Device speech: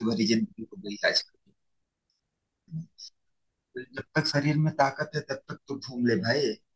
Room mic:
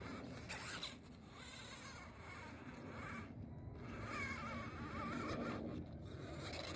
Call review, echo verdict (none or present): none